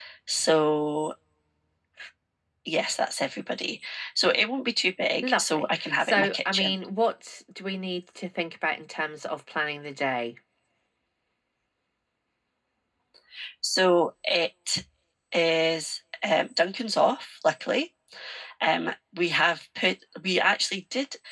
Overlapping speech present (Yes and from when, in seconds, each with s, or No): Yes, from 5.2 s